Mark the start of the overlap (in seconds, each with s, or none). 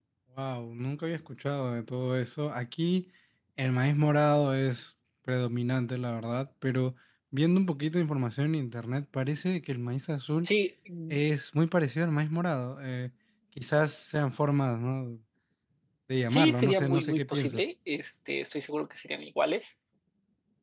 16.3 s